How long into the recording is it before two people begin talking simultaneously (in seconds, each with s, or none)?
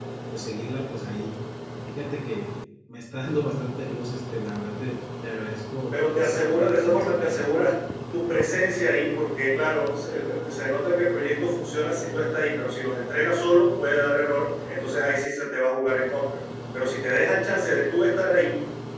5.9 s